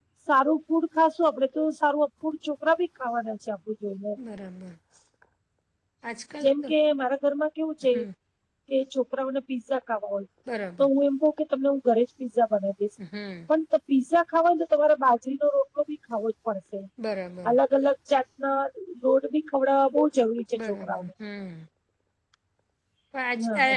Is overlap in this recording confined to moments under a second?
Yes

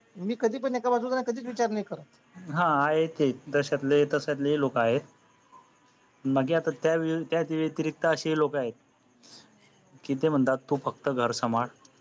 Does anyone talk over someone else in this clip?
No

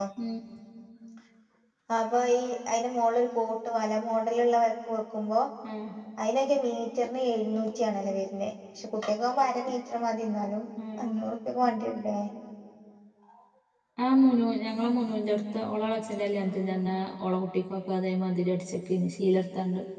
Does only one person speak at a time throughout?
Yes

